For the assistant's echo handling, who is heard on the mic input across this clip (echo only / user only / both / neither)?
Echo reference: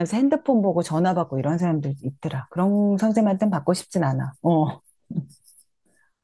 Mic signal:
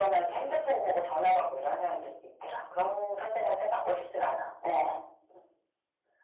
echo only